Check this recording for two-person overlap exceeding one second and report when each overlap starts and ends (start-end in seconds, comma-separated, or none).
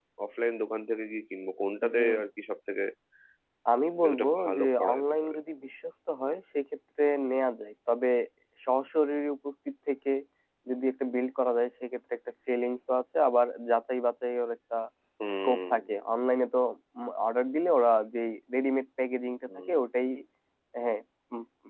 4.0-5.4